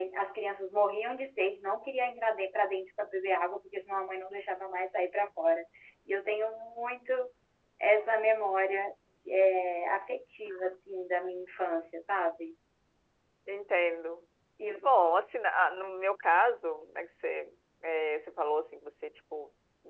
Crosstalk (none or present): none